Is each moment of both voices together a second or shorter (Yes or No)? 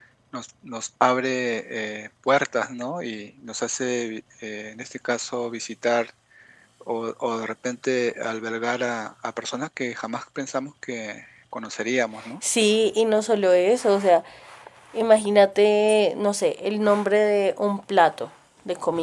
Yes